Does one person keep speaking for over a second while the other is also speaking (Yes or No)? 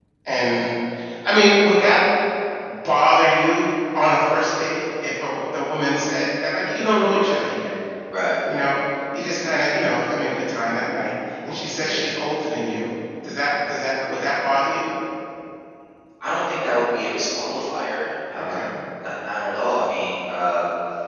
No